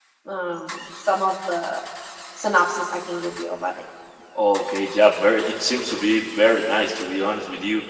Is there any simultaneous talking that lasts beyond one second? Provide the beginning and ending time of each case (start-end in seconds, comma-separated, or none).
none